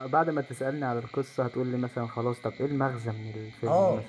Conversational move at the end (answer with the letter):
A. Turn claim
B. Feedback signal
A